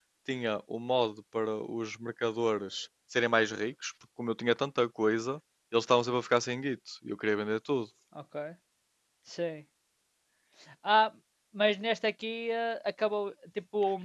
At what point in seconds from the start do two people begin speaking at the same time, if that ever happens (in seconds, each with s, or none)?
none